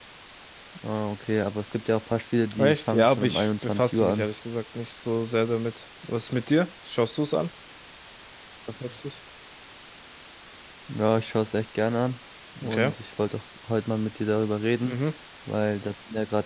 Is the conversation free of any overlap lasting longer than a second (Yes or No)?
No